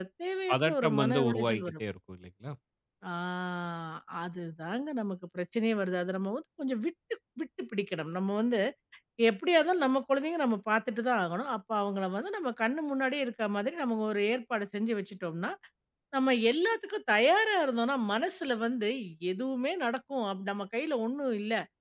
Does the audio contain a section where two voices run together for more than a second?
Yes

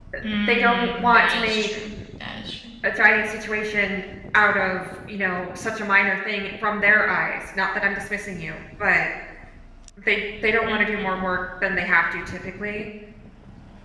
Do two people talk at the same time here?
Yes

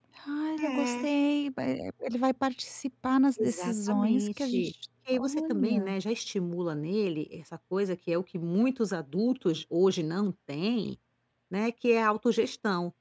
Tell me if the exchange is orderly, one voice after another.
No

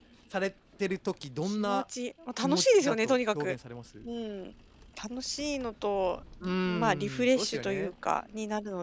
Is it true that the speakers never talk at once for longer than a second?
No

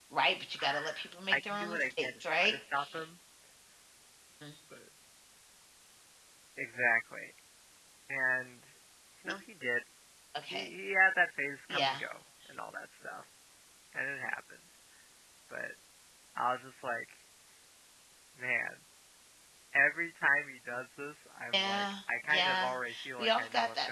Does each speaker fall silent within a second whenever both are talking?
No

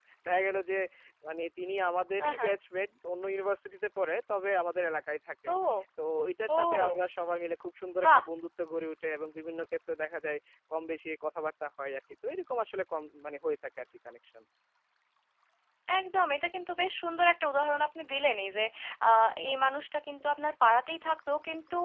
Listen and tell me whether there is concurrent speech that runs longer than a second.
No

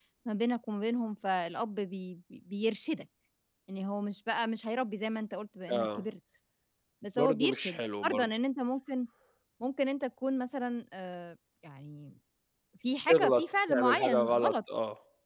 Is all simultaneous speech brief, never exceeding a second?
No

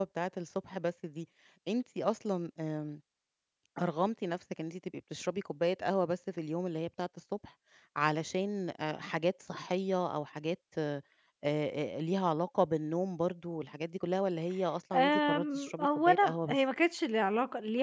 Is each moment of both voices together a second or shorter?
No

